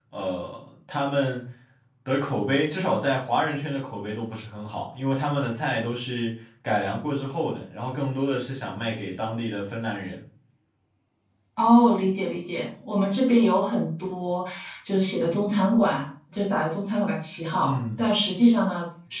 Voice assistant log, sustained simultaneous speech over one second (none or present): none